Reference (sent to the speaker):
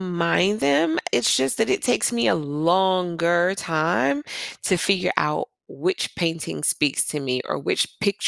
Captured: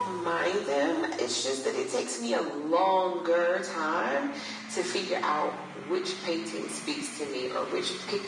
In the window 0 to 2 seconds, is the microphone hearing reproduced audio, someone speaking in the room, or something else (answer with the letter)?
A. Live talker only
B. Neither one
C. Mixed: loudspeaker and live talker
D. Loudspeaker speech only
D